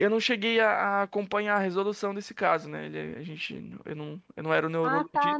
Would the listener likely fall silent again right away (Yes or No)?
No